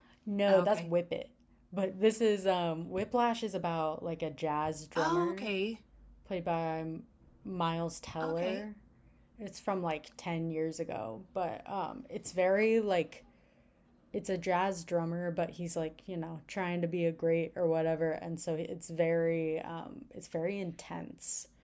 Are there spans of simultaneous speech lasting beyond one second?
No

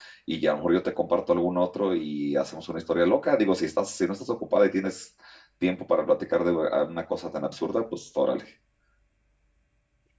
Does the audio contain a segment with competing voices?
No

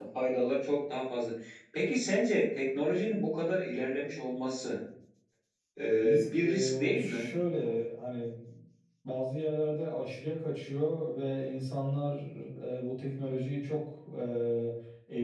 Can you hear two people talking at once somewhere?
Yes, from 6.0 s

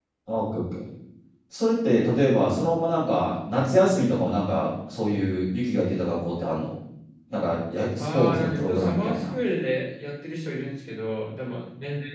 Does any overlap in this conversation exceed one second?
Yes, from 8.0 s

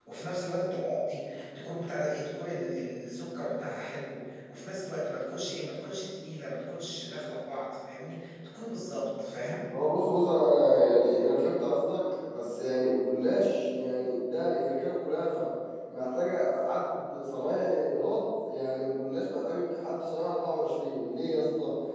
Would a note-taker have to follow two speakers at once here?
No

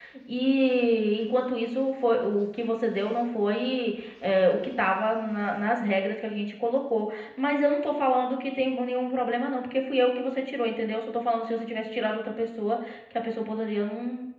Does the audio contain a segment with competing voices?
No

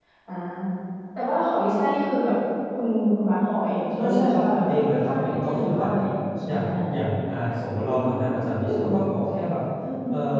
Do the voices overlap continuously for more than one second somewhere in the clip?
Yes, from 4.0 s

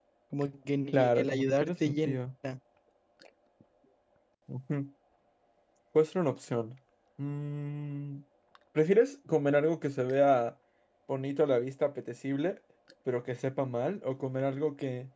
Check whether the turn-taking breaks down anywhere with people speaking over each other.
Yes, from 0.9 s

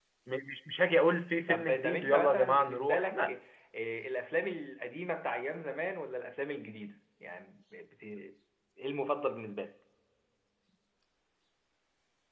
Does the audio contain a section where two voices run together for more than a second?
Yes, from 1.5 s

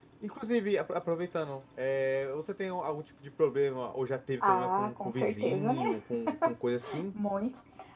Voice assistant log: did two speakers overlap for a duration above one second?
Yes, from 4.4 s

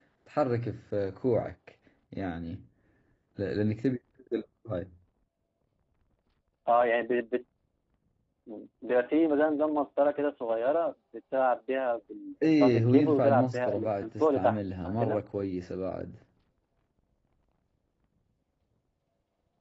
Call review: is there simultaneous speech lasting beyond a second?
Yes, from 12.4 s

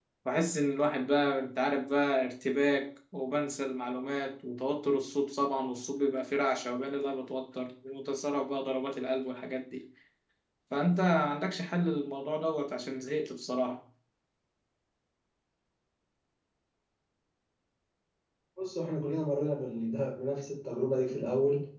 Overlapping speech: No

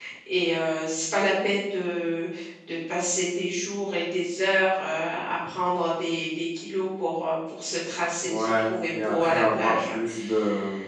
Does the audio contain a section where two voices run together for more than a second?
Yes, from 8.2 s

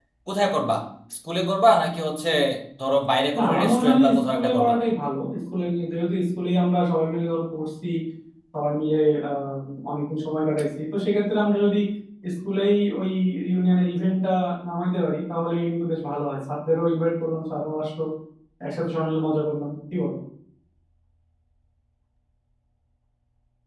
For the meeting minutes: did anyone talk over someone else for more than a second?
Yes, from 3.4 s

